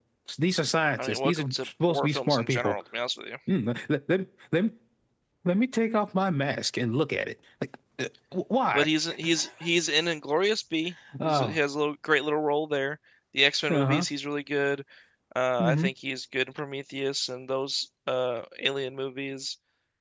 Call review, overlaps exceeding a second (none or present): present